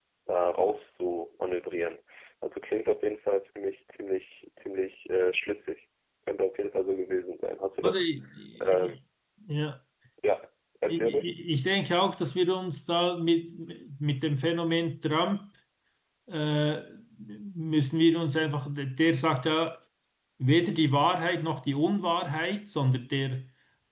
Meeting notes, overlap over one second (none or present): none